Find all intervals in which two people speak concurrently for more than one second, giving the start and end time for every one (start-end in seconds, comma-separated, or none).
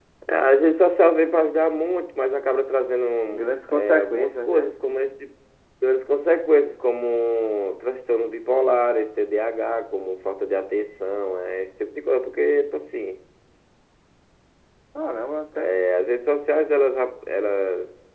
3.3-4.7